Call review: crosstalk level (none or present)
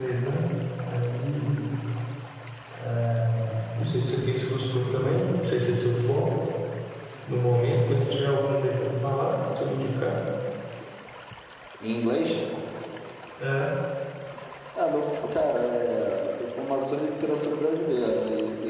none